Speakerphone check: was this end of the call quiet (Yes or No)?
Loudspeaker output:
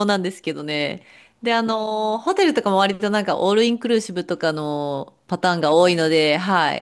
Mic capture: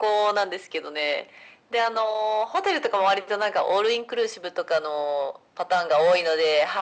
Yes